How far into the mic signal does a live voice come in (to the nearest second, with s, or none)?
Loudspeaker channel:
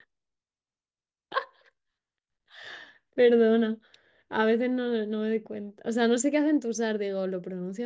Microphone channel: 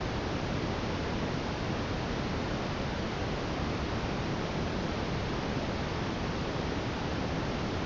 none